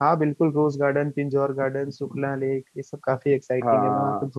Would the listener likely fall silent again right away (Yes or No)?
No